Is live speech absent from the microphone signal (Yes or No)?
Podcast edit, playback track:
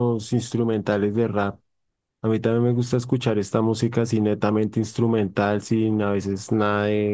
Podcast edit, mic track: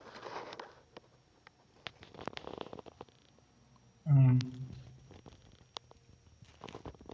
No